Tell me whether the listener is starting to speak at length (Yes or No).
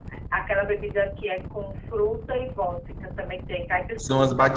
Yes